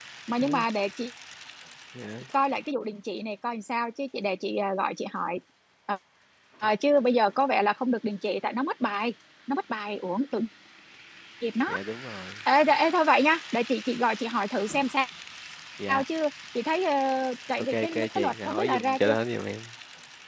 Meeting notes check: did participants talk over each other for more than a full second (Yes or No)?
Yes